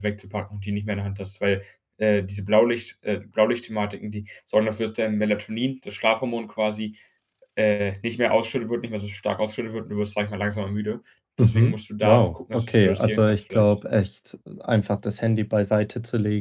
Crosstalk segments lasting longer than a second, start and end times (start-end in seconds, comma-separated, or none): 11.4-13.7